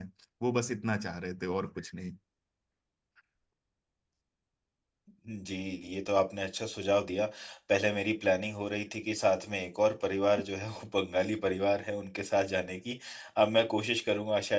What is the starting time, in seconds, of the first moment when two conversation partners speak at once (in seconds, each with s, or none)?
none